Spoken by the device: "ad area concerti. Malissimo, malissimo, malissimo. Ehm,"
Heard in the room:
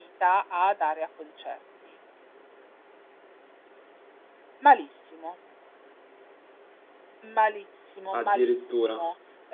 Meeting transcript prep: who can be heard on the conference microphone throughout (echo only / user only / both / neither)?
both